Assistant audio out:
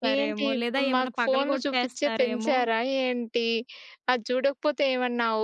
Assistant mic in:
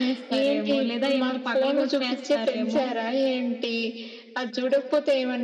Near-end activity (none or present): none